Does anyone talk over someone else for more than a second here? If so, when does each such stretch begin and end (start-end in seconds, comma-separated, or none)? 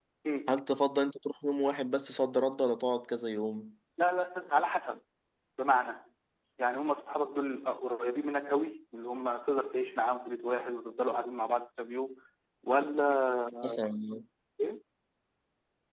none